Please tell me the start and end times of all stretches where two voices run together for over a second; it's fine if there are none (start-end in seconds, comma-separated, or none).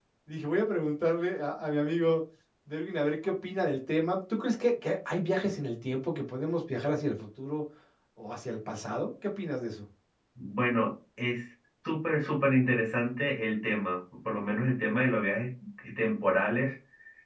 none